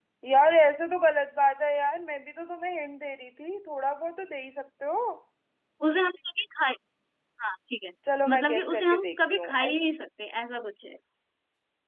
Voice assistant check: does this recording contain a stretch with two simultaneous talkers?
Yes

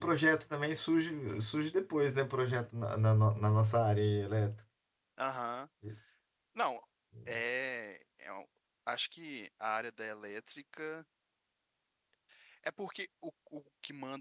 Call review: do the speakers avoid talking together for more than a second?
Yes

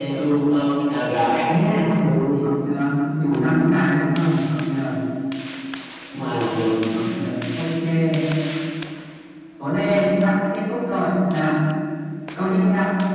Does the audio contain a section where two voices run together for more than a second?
No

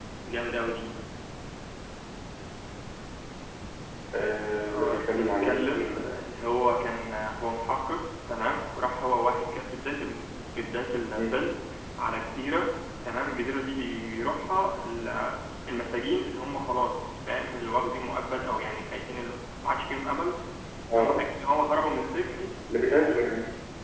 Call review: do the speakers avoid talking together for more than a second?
No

